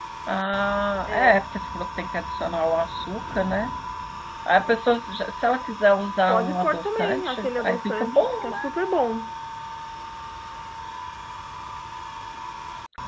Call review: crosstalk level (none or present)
present